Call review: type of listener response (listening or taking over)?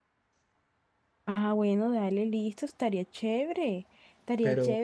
listening